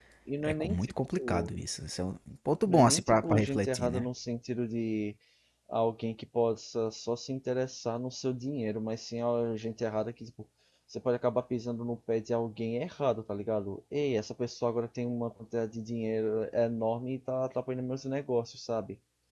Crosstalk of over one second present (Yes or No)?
Yes